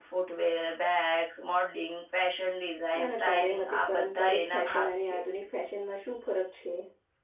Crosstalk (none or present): present